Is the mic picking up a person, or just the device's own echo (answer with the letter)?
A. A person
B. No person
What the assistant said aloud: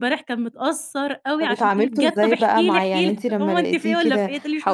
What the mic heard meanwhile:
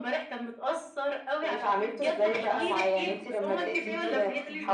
A